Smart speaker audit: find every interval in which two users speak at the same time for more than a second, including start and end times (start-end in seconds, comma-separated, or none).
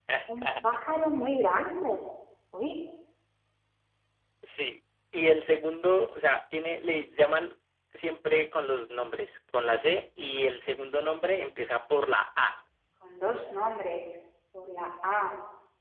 none